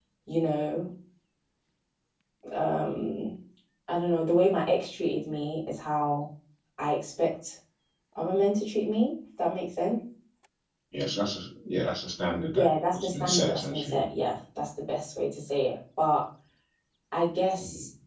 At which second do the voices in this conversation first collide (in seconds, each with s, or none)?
12.6 s